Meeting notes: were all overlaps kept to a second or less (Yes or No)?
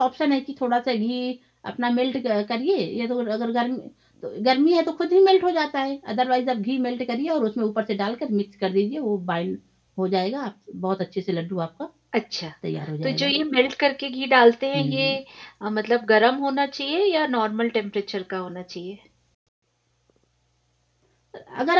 Yes